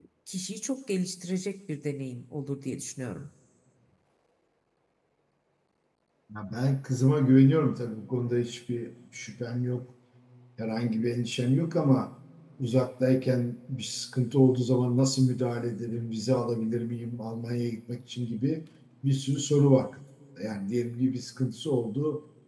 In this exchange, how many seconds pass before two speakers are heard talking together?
none

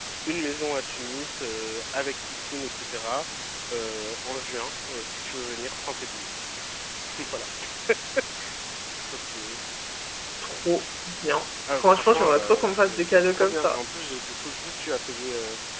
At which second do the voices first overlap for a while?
12 s

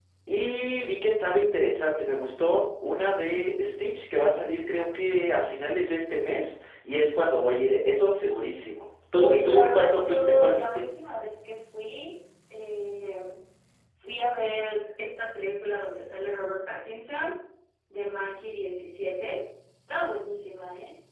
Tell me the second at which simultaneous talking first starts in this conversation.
9 s

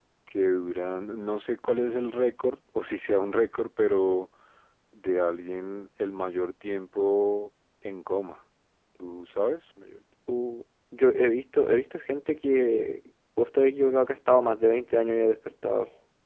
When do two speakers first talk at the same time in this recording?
none

